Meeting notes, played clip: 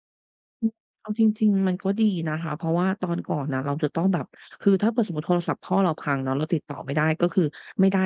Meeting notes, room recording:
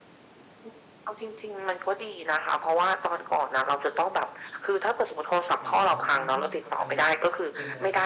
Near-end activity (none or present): present